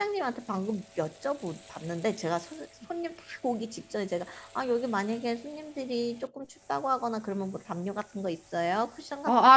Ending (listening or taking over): taking over